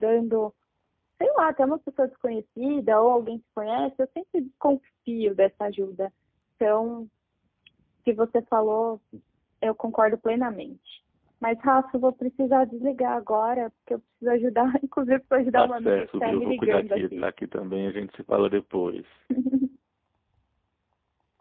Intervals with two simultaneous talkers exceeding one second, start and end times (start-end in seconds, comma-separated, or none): 15.6-17.2